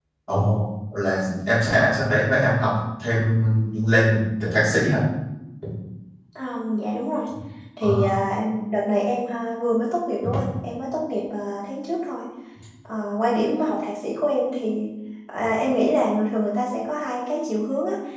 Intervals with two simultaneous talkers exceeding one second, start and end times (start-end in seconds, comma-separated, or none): none